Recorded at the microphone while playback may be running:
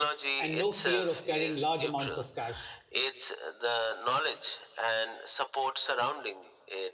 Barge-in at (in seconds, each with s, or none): 0.4 s